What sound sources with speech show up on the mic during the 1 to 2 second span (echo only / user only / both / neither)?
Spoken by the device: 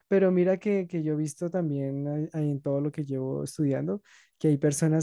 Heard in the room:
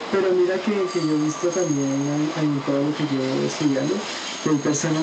echo only